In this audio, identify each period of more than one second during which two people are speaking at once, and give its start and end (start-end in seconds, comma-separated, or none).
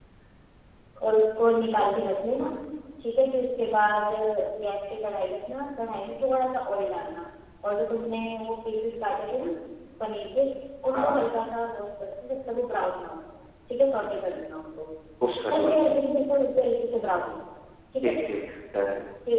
none